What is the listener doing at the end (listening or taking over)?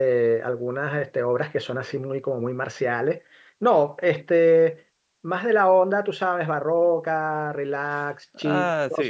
listening